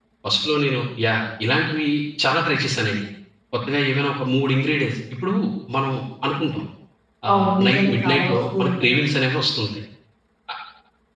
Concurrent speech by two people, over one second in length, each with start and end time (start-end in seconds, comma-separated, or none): 7.3-9.0